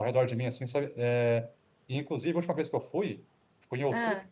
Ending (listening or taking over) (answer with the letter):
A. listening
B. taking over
A